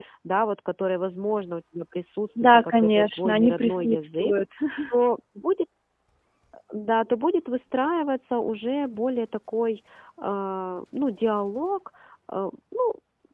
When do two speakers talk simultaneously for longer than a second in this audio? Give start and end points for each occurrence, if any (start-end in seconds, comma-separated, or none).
2.4-4.3